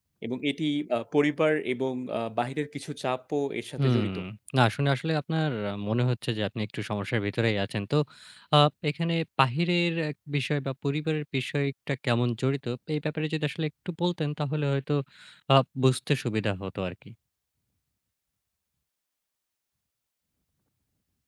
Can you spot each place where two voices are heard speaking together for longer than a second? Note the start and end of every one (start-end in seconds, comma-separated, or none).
none